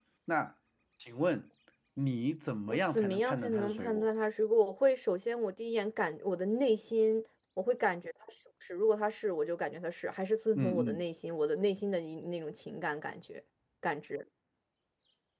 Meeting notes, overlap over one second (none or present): present